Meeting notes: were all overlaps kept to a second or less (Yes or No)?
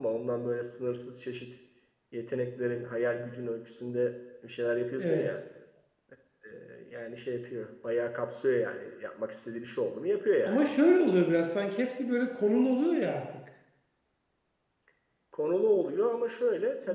Yes